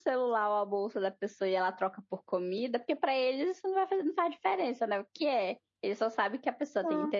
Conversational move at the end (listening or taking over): listening